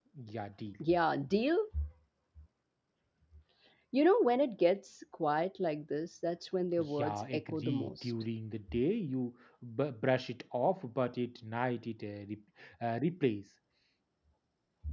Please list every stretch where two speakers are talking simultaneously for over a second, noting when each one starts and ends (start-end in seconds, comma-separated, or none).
6.8-8.1